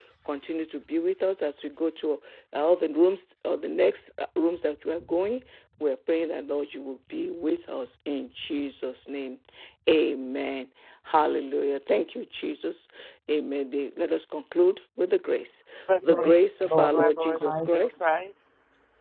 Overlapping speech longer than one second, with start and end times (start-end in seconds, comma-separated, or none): 16.0-18.1